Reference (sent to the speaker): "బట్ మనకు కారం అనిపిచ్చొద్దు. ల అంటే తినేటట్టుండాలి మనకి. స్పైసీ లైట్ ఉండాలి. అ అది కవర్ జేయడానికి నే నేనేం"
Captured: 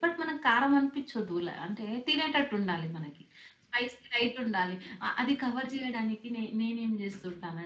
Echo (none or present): present